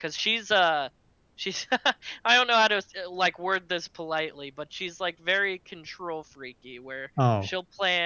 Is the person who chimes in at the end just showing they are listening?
Yes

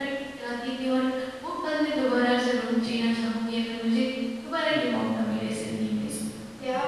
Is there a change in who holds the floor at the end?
Yes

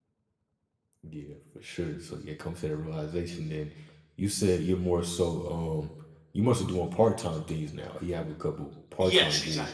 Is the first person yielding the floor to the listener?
Yes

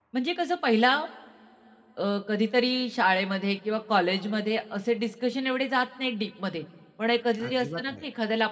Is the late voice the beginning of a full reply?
No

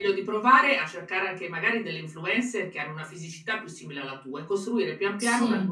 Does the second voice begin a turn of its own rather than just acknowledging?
No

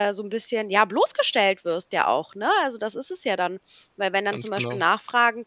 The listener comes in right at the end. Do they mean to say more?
No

